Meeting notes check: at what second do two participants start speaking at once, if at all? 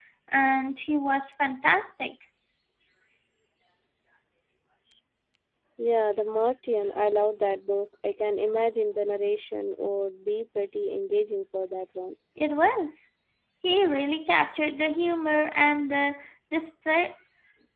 none

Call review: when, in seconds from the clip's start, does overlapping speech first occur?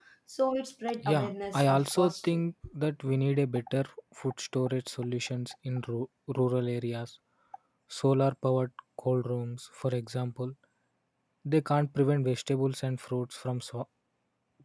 1.0 s

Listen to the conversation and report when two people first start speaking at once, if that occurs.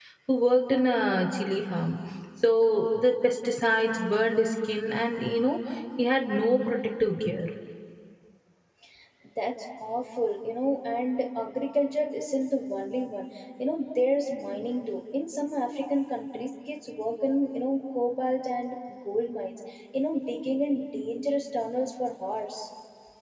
none

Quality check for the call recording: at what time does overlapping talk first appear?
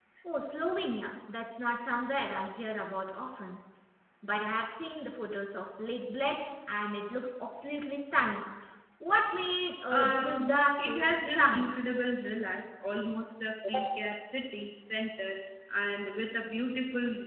9.9 s

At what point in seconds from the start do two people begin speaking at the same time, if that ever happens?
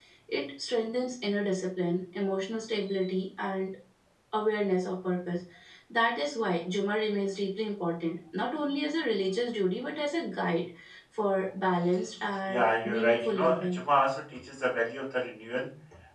12.5 s

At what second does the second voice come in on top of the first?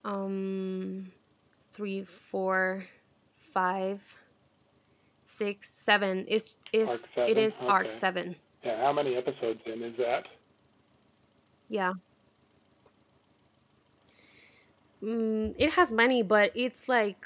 6.8 s

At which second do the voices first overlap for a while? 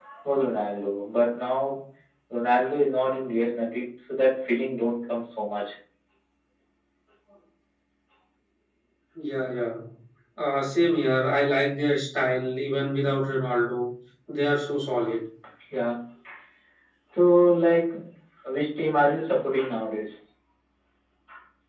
none

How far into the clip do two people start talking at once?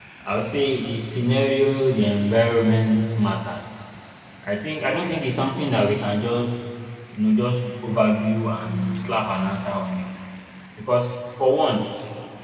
none

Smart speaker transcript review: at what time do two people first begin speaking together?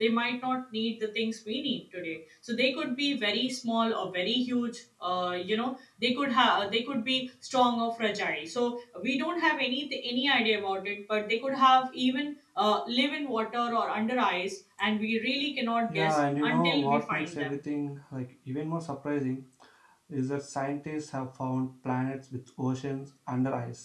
15.9 s

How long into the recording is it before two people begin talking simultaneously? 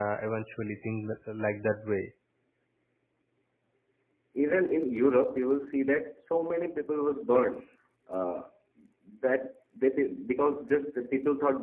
none

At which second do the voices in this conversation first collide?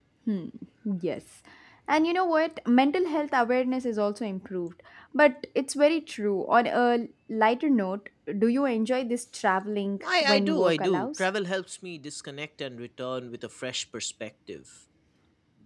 10.0 s

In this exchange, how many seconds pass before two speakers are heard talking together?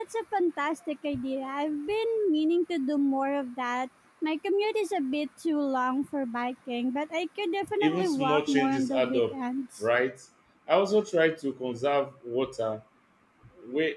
7.8 s

